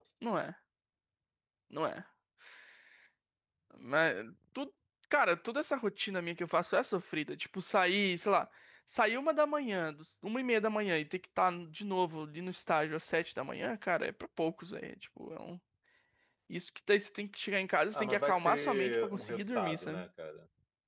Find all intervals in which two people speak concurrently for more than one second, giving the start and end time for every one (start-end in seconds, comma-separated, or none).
17.9-20.0